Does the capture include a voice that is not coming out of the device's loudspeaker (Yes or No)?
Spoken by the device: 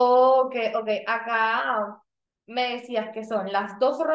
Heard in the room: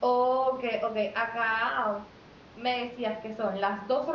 No